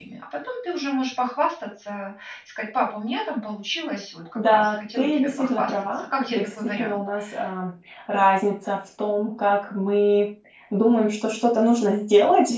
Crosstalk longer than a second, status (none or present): present